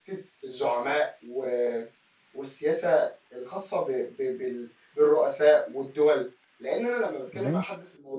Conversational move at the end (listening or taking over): listening